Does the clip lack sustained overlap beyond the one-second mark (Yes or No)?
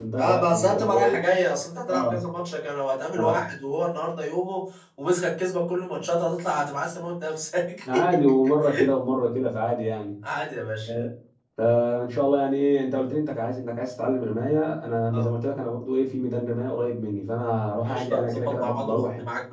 No